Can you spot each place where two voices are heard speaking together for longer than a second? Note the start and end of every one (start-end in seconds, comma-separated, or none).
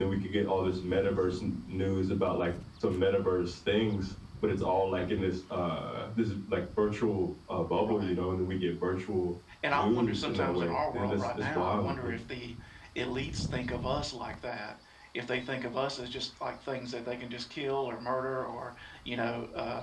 9.7-12.1